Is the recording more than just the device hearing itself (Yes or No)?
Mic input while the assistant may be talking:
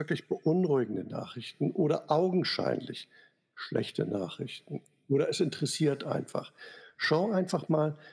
No